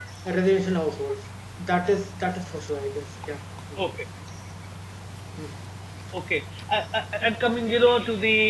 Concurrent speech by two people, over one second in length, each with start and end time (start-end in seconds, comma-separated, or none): none